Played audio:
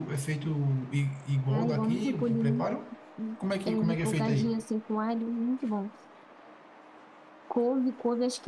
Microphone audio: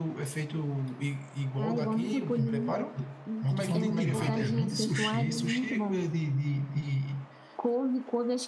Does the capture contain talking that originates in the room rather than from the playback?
Yes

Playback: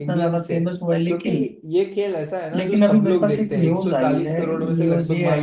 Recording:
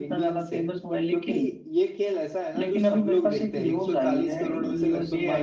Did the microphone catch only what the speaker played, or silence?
Yes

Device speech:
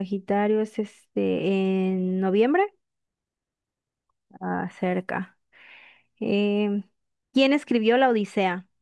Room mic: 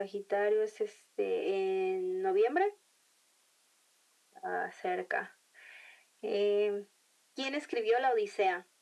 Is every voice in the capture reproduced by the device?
Yes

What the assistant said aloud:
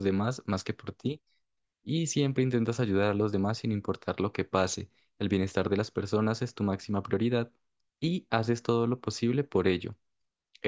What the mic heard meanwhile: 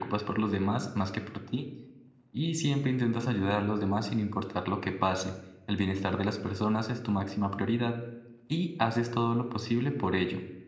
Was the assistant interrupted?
No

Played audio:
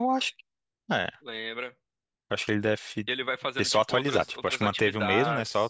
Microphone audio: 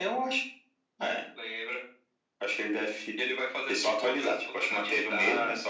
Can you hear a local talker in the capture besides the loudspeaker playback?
No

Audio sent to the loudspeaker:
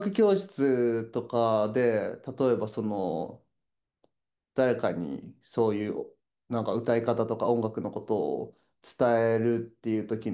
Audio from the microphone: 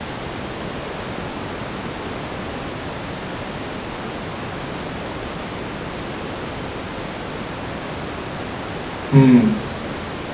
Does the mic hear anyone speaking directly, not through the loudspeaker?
Yes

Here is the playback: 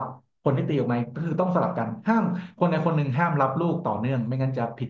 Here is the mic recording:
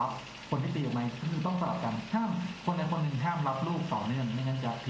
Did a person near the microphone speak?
No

